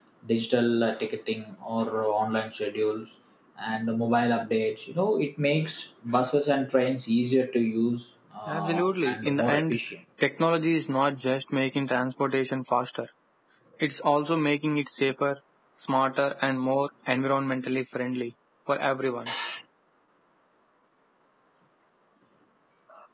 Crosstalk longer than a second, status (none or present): present